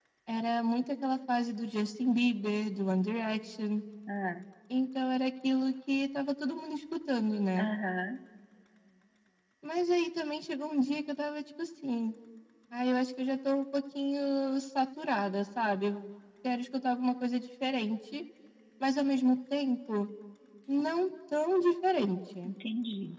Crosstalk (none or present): none